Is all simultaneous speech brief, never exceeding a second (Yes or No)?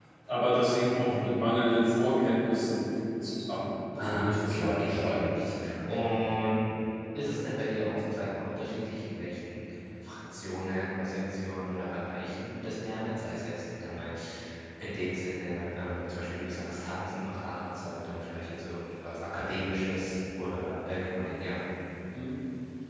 No